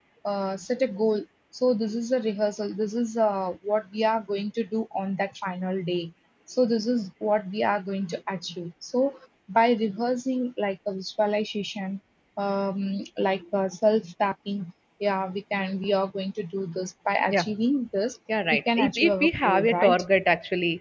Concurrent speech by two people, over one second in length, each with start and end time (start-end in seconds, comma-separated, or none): 18.5-20.0